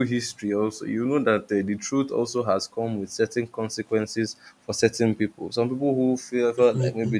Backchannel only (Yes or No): Yes